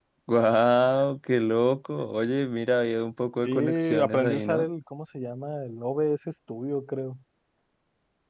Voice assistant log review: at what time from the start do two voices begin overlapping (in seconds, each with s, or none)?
3.4 s